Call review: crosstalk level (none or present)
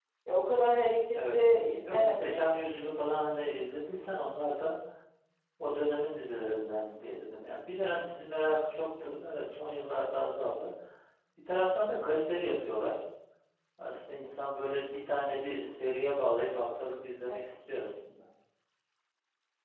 present